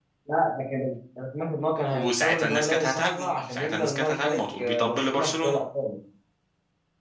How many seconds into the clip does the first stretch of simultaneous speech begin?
2 s

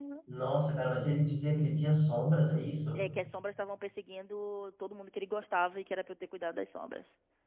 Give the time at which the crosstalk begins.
none

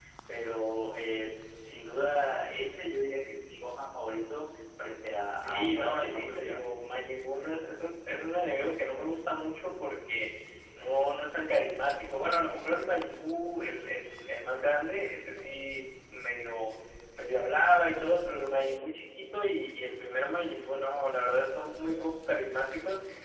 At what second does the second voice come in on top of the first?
5 s

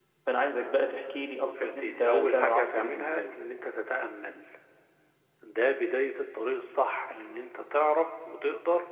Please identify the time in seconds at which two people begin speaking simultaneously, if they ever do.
1 s

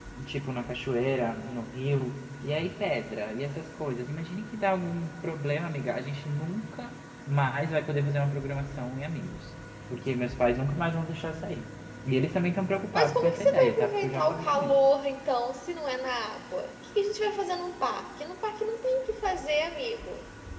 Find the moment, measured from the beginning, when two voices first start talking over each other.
13 s

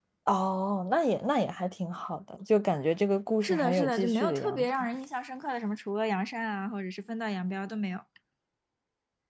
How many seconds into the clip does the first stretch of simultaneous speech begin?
3 s

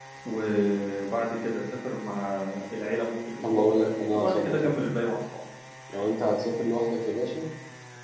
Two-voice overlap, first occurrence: 3 s

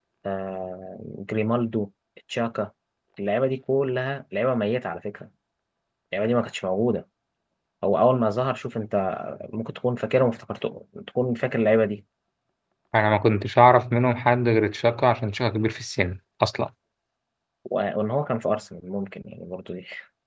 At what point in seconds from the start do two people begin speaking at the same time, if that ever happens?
none

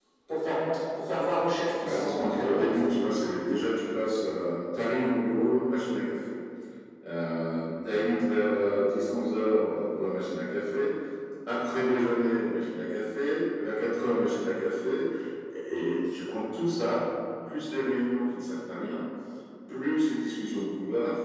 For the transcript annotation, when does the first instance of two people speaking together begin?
2 s

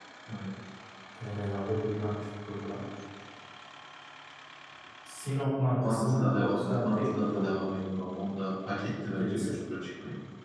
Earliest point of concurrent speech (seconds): 6 s

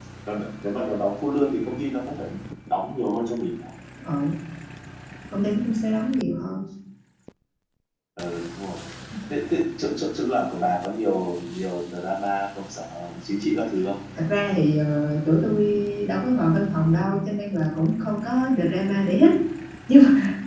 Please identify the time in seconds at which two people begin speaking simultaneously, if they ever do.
none

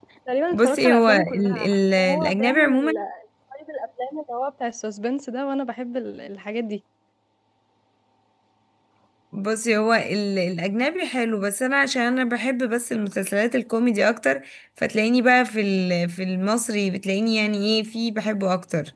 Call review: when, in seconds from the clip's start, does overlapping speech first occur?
1 s

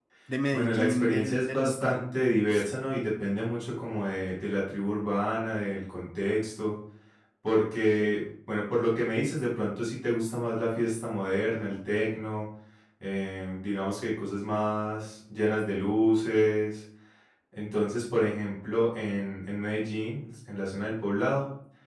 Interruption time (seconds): 1 s

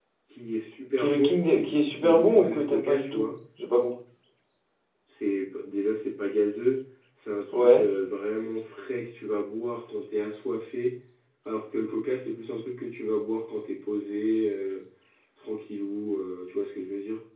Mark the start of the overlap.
1 s

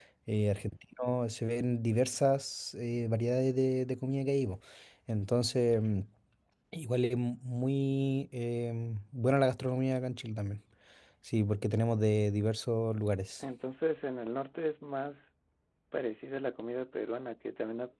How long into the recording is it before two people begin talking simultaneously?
none

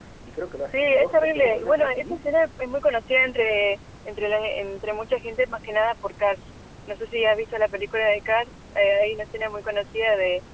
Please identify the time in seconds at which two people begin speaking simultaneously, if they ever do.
1 s

